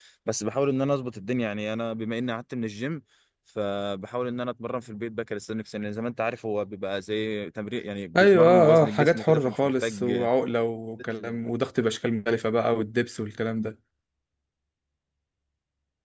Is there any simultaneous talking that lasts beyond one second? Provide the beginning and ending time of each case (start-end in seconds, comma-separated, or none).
8.2-10.3